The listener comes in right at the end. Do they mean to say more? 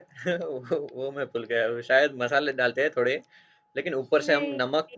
No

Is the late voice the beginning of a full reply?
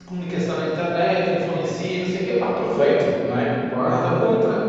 No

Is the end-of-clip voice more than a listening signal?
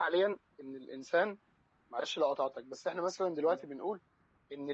No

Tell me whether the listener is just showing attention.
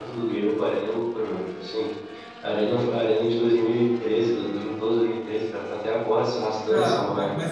No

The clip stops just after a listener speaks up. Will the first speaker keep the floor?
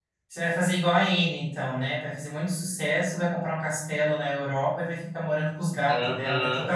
No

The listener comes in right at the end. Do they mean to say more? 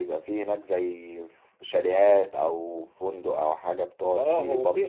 Yes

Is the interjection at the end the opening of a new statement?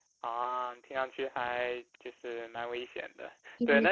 No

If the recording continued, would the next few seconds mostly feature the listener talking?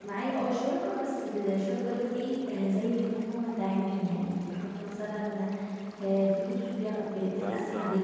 Yes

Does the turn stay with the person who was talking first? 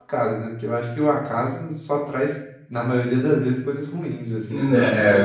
No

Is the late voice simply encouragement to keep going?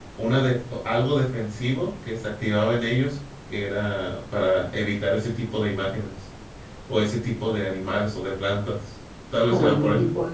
No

